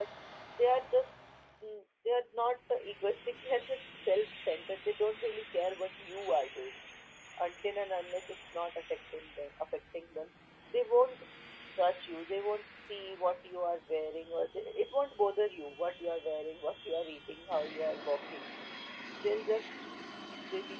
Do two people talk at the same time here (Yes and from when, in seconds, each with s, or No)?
No